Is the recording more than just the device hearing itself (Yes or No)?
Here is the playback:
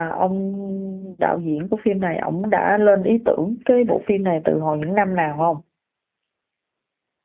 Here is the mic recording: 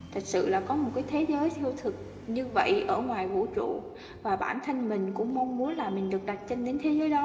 Yes